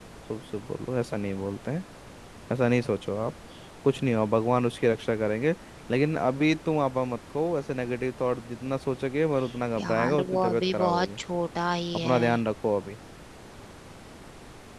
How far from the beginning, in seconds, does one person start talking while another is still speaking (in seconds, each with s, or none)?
9.8 s